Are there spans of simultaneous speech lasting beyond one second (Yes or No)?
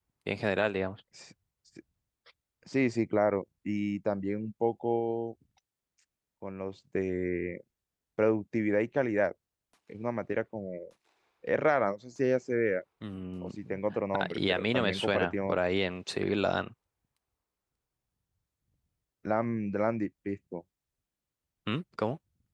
Yes